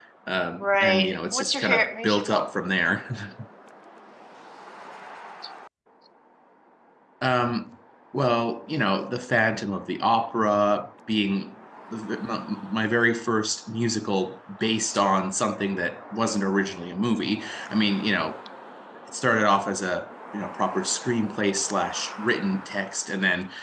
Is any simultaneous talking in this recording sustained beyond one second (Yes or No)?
Yes